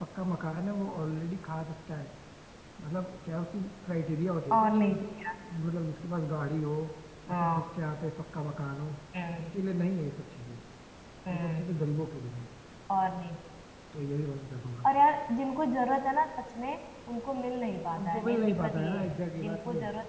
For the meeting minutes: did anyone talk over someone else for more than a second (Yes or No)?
Yes